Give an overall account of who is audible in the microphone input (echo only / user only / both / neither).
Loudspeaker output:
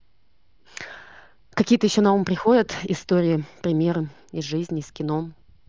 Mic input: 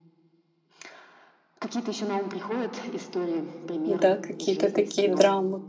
both